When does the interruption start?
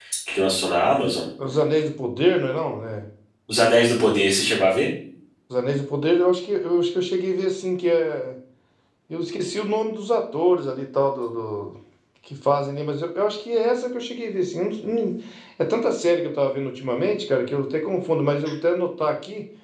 none

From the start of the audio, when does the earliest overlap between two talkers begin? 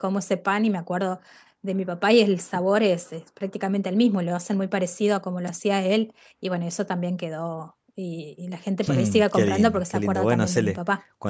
8.8 s

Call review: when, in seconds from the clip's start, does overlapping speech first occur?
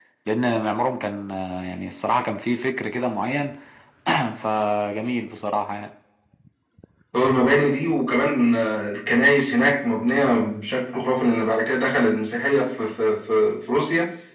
none

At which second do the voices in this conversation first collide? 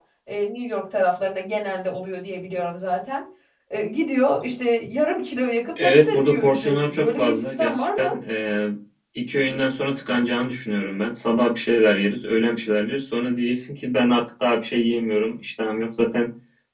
5.8 s

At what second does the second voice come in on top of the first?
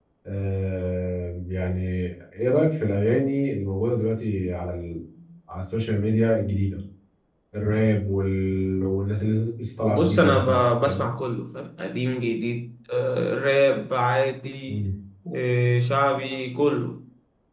9.9 s

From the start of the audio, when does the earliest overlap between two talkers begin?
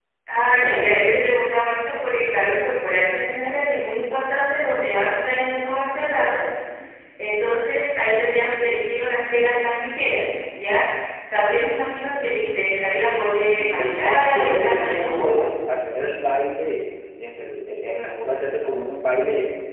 13.4 s

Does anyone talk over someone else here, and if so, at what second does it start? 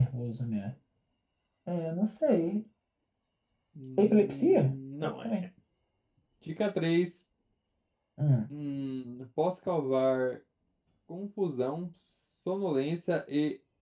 4.0 s

